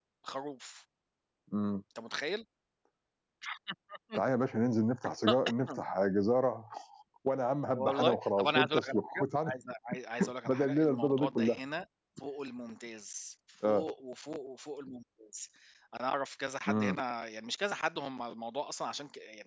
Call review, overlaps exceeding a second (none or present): present